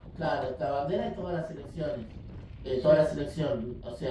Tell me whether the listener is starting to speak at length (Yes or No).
No